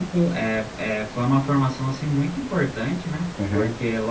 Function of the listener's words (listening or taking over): listening